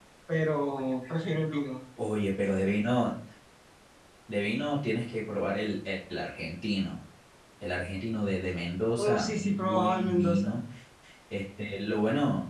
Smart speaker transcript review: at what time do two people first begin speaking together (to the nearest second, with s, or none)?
9 s